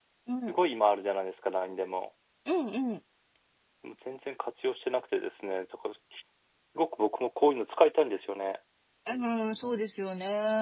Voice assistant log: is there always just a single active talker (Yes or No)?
Yes